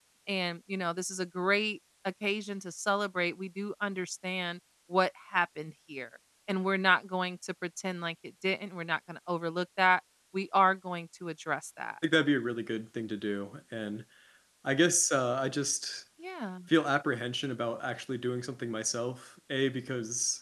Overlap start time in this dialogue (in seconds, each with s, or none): none